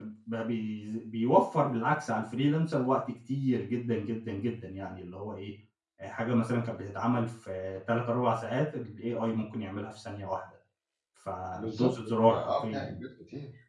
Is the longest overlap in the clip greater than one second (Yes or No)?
Yes